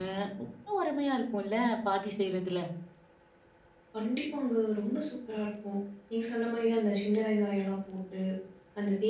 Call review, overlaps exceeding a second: none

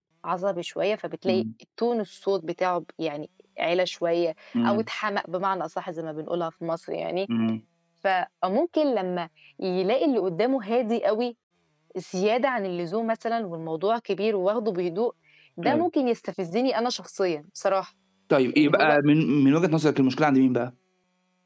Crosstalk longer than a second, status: none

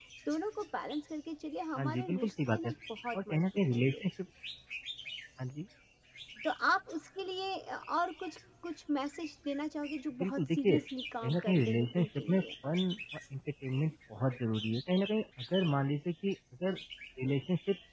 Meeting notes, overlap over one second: present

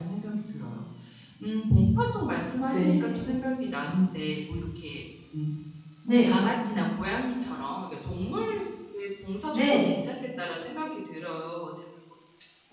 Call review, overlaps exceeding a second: none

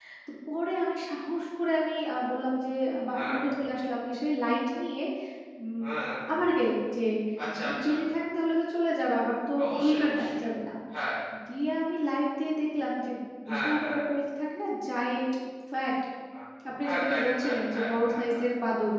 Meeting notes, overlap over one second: present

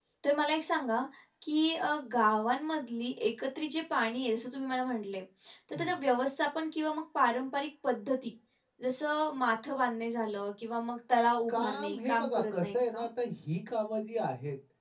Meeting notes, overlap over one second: present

